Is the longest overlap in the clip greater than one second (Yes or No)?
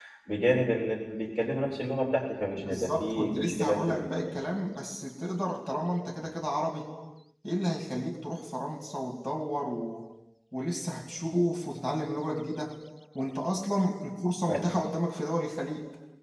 Yes